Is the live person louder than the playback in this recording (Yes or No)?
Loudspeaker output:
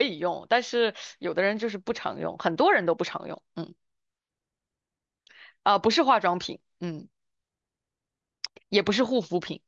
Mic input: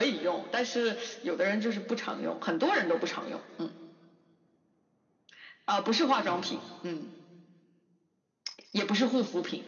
No